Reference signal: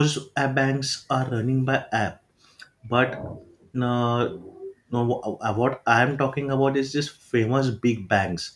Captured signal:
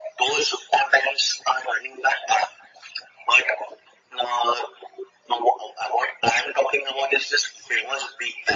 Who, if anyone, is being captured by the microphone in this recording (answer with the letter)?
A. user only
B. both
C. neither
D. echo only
D